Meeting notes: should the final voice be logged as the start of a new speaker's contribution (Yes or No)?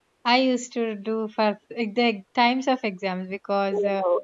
No